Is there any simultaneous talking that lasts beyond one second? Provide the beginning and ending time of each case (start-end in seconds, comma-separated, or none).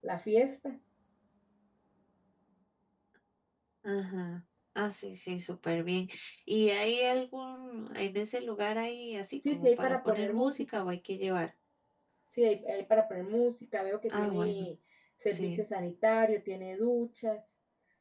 9.5-10.8